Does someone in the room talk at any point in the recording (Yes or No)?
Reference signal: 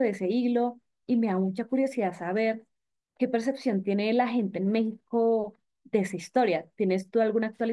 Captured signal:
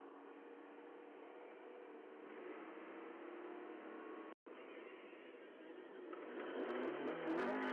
No